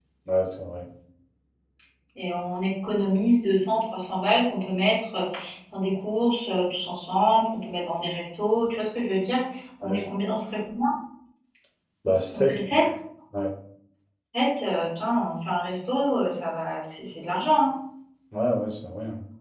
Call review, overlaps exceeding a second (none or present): none